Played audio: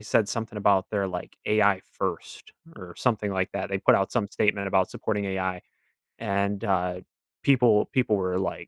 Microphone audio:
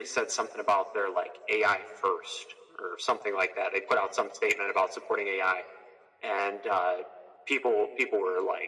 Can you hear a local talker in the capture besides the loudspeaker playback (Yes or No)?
No